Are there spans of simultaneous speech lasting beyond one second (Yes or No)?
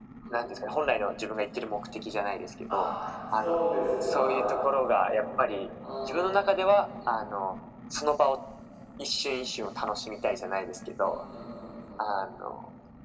Yes